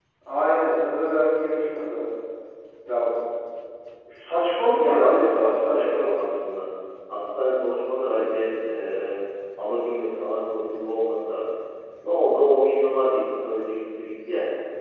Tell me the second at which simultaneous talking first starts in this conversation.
4.7 s

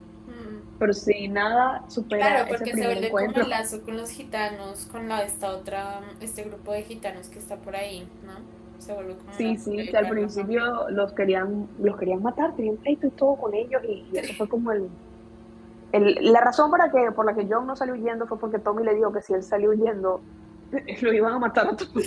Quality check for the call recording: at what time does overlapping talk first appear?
2.2 s

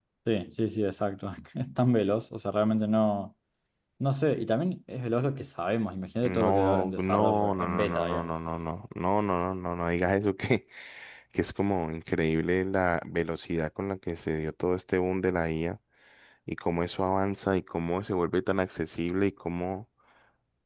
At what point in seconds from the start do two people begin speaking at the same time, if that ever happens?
6.2 s

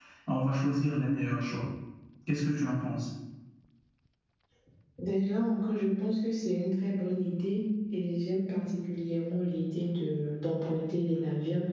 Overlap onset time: none

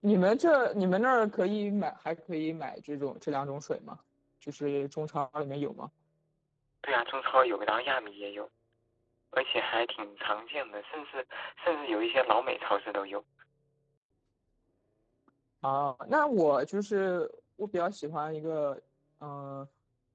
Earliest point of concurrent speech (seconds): none

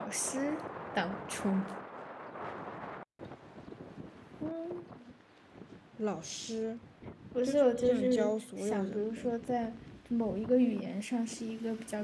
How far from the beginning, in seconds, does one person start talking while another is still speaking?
7.4 s

